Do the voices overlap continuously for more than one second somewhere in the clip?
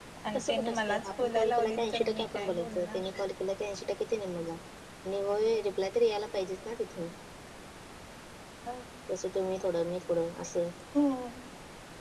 Yes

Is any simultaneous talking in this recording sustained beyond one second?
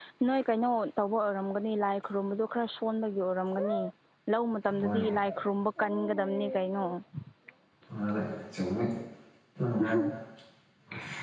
No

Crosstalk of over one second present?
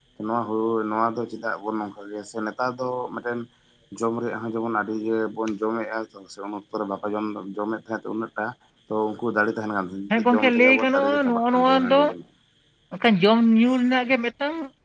Yes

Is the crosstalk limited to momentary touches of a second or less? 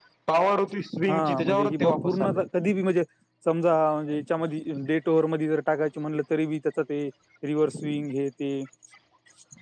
No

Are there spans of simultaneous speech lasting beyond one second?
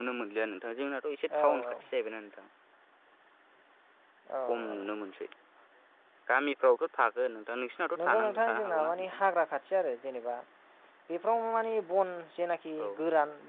Yes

